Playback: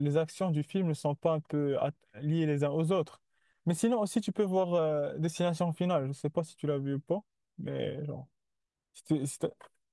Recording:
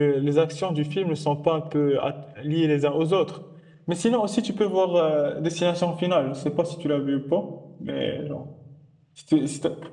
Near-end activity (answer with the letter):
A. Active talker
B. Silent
B